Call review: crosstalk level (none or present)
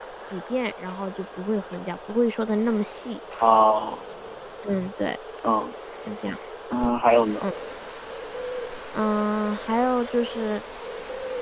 none